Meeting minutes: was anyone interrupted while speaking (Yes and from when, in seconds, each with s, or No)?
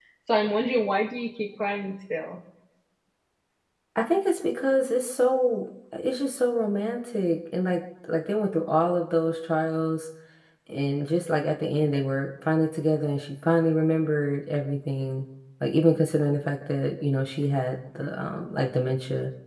No